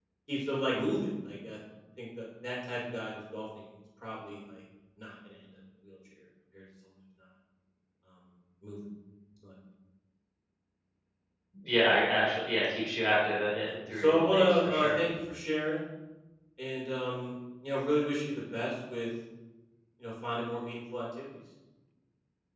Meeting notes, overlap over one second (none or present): present